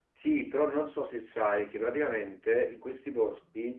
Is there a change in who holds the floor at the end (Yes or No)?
No